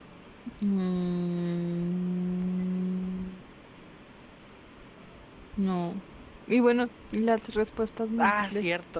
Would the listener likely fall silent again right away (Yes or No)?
No